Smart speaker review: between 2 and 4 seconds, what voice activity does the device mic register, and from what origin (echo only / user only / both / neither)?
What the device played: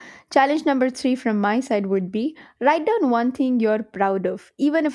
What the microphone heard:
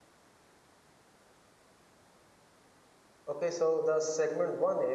user only